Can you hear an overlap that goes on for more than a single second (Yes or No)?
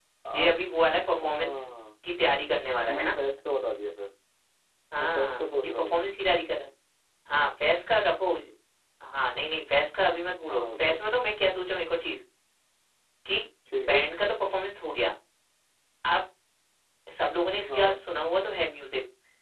Yes